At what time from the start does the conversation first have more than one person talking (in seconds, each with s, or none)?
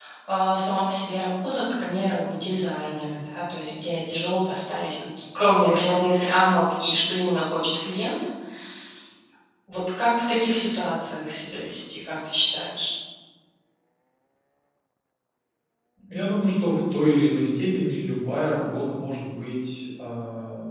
none